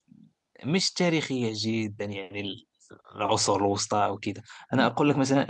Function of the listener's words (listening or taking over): listening